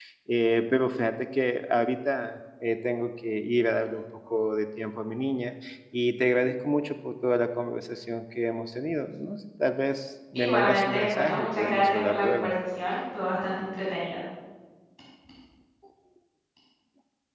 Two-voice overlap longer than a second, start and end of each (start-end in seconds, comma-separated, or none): 10.4-12.5